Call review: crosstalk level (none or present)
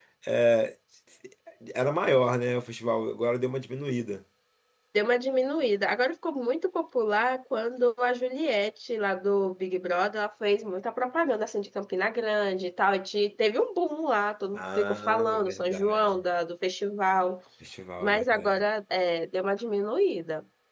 present